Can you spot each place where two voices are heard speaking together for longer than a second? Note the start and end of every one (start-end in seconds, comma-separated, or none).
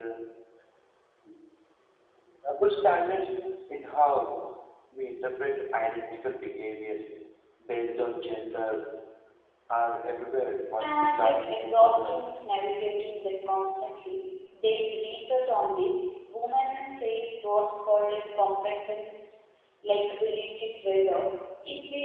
10.8-12.2